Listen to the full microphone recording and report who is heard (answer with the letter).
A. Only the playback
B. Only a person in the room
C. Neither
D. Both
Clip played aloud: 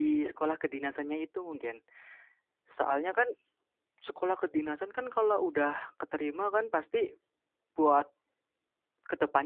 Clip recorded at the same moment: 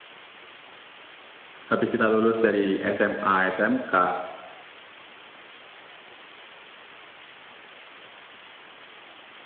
B